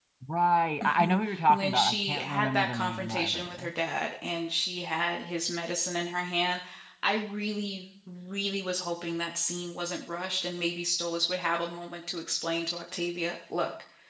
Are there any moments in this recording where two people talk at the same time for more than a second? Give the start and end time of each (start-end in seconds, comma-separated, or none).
0.8-3.7